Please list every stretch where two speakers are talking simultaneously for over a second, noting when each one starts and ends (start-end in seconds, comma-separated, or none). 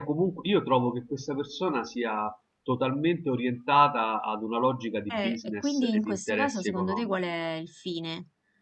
5.1-7.2